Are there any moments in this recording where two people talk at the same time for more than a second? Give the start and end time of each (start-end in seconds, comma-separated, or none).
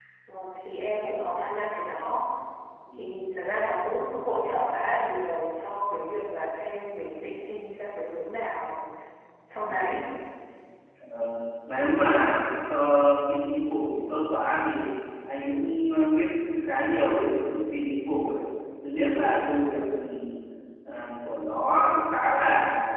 none